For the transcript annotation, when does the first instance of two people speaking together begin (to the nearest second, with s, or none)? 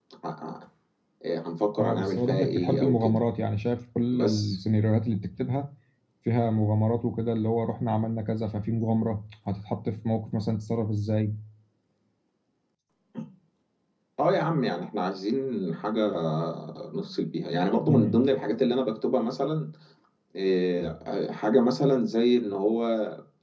2 s